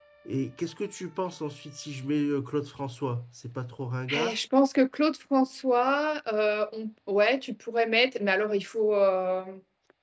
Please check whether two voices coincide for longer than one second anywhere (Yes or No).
No